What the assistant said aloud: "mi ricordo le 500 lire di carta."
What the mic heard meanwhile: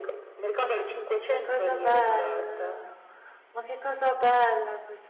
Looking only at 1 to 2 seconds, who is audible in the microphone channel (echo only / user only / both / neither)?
both